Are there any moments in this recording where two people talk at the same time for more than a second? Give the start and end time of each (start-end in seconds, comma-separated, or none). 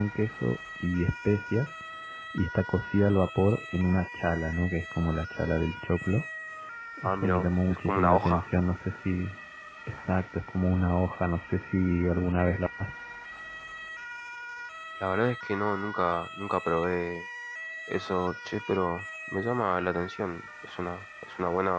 7.0-8.5